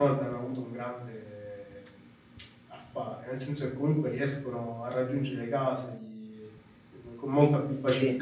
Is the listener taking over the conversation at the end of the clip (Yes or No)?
No